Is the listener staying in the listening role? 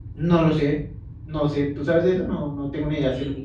No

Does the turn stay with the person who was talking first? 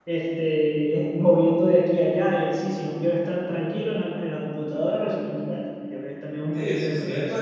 No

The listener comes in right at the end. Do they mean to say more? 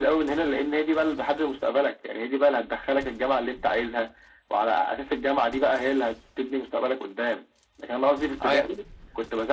No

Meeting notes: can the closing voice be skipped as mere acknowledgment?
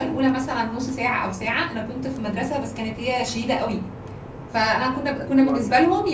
Yes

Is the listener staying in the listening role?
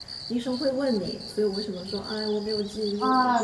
No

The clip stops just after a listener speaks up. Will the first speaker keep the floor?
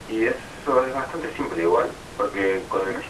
Yes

